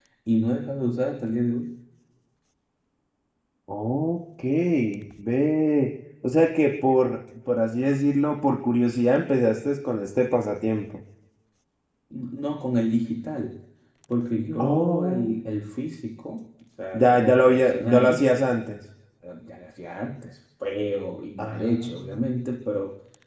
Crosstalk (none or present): present